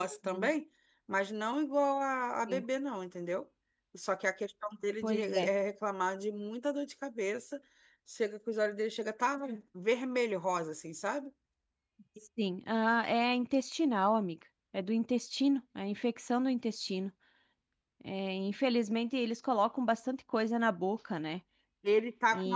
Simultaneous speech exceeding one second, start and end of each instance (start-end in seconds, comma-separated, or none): none